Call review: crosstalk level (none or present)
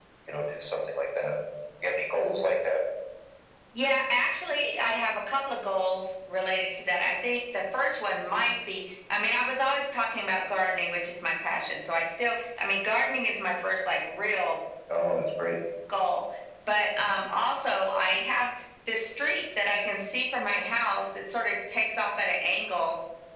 none